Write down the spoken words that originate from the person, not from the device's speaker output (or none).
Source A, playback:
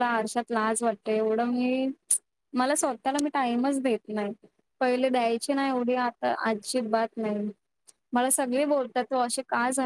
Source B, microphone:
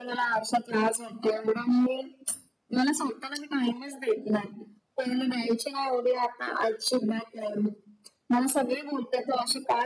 none